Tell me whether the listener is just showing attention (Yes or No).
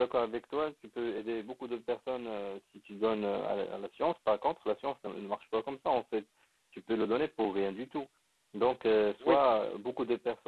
Yes